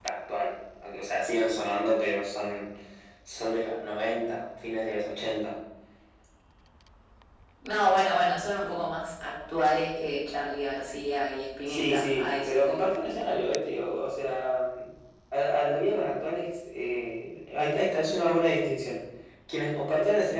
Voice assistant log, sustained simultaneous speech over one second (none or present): present